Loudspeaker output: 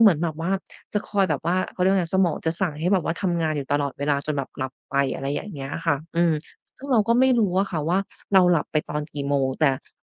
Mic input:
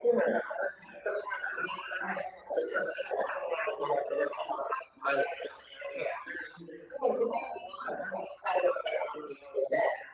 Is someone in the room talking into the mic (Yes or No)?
No